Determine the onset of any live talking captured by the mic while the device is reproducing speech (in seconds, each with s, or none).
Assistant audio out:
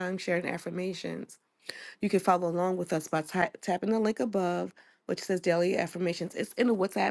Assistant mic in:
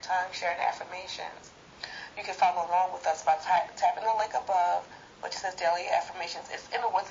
none